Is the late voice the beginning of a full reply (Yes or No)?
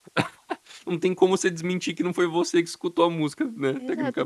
Yes